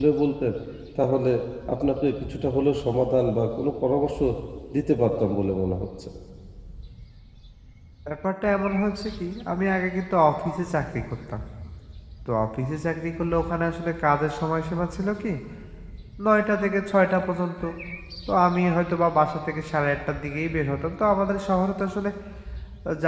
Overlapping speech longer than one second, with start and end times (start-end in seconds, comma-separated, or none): none